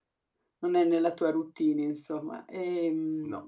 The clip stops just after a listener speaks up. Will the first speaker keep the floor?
Yes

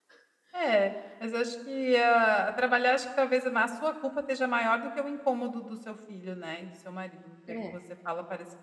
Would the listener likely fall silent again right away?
Yes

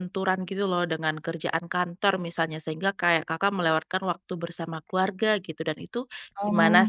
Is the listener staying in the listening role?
No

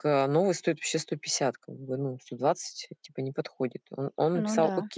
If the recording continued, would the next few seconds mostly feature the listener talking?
No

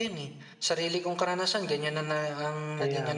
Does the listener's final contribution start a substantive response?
No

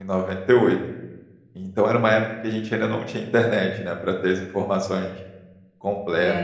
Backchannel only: Yes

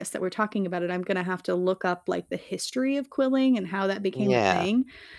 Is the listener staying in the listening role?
Yes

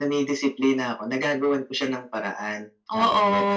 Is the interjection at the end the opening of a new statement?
Yes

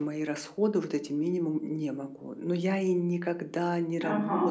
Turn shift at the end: No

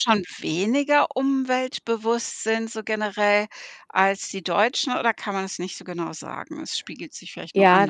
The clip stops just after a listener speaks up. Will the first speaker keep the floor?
No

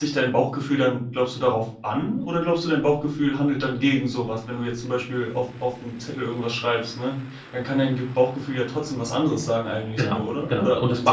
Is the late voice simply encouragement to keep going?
No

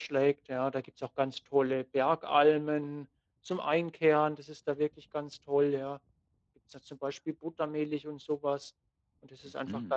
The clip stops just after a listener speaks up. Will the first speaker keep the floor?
Yes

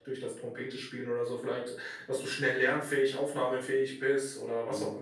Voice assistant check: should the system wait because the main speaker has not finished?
No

